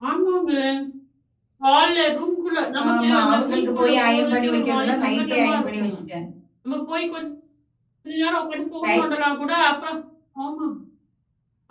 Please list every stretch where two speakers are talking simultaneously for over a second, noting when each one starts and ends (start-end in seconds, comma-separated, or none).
2.9-5.9